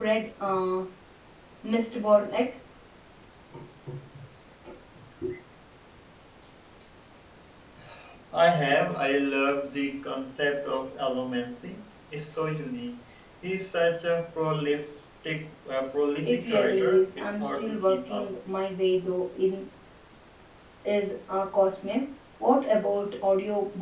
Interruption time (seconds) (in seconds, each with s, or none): 16.2 s